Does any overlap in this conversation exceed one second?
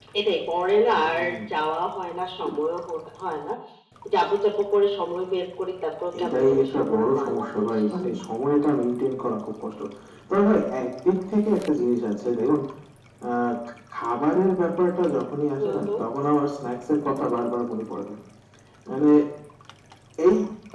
Yes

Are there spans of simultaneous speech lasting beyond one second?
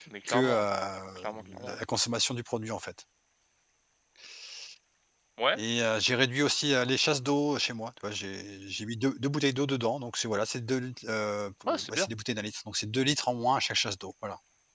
No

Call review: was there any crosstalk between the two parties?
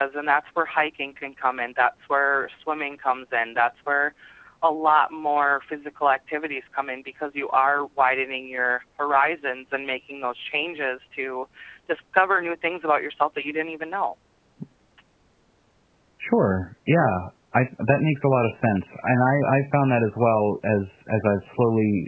No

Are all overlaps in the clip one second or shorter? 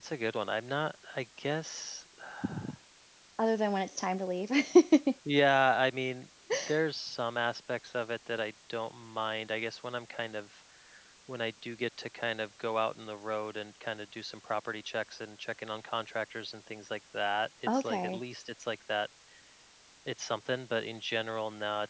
Yes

